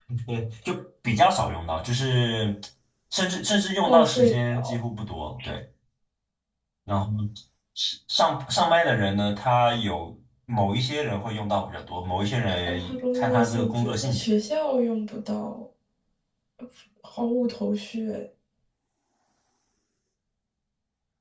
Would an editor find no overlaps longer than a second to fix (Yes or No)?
No